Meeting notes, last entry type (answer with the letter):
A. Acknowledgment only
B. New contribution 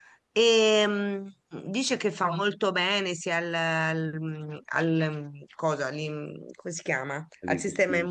A